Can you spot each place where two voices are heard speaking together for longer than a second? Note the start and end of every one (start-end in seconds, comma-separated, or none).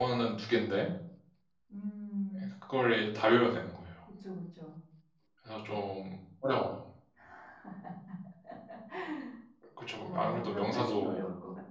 10.0-11.2